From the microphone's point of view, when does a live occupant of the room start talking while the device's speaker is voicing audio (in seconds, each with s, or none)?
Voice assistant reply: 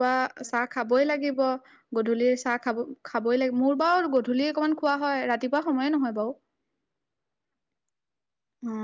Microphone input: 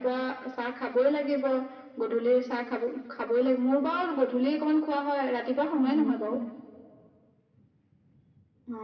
5.6 s